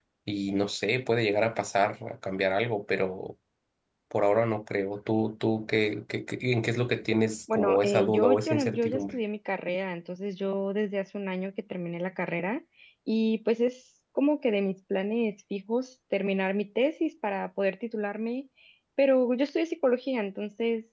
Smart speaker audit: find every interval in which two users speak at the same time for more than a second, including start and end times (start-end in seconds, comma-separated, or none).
7.5-9.2